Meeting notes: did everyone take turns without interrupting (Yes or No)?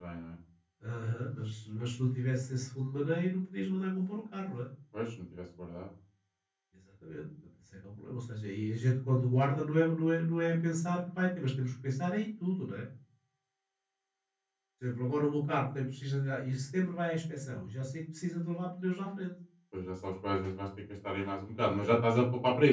Yes